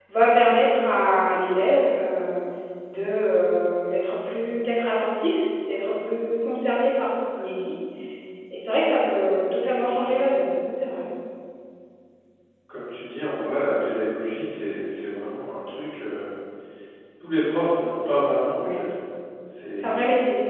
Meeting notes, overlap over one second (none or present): none